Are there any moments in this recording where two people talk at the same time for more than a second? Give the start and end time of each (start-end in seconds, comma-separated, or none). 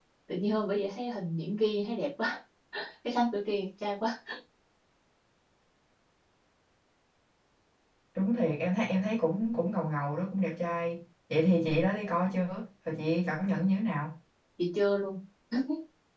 none